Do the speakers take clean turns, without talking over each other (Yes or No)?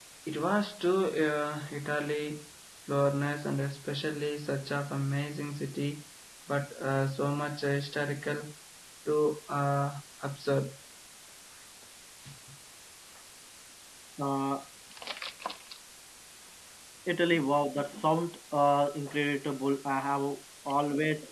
Yes